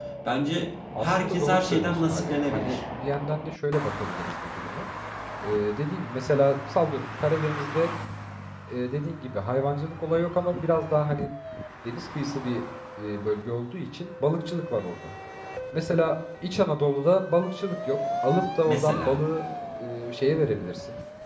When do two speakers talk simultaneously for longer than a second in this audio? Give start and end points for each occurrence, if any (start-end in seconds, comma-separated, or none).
1.0-2.8